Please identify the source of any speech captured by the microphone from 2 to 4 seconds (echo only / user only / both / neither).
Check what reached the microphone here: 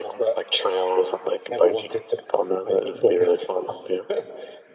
echo only